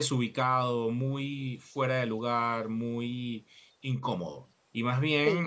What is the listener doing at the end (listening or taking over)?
listening